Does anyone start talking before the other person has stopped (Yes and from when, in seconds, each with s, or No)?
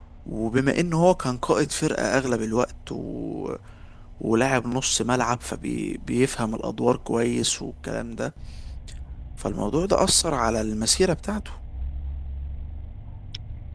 No